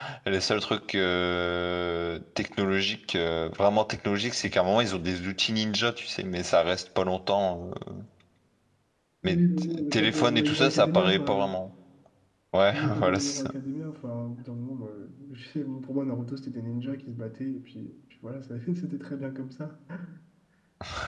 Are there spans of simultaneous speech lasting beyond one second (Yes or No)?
Yes